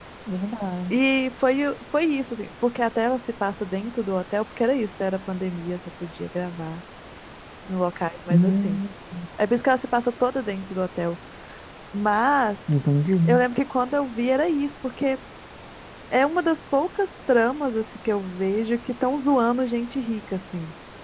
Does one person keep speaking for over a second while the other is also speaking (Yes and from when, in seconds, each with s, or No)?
No